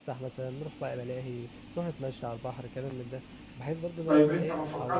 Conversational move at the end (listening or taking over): taking over